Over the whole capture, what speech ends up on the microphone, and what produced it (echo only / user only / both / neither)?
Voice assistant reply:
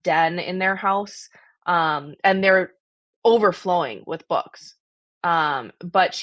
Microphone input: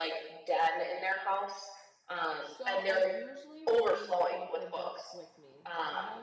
both